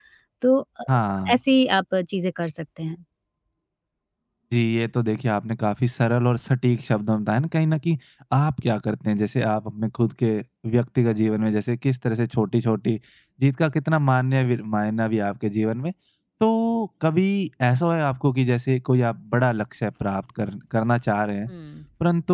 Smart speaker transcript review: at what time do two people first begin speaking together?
none

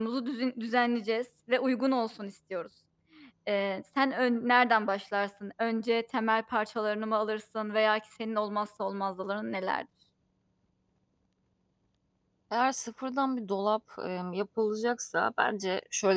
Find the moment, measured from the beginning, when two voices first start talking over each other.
none

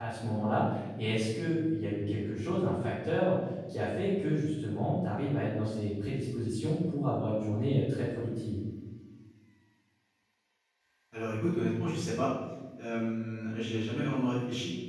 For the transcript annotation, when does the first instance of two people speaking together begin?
none

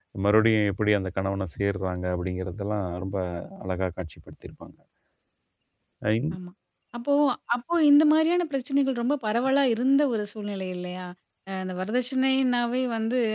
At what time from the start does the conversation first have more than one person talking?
none

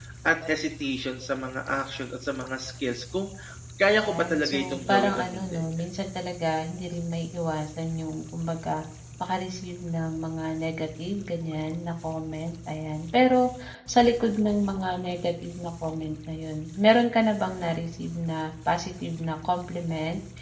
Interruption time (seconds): 4 s

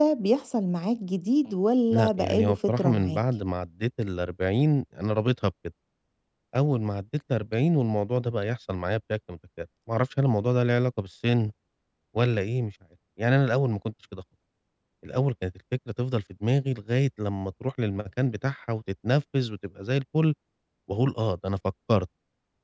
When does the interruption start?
2 s

